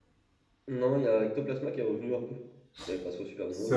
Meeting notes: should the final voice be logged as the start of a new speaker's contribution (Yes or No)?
Yes